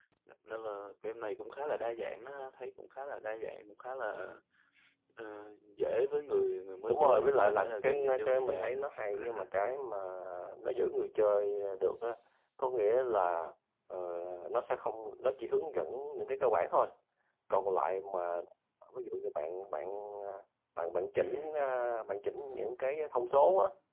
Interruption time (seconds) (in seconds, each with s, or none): 6.9 s